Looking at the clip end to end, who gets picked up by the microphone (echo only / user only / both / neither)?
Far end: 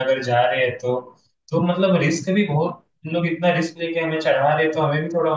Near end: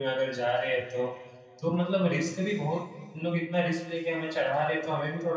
echo only